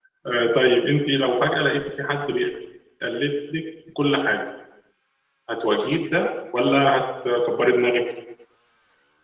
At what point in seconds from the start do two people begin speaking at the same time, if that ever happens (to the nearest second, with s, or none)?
none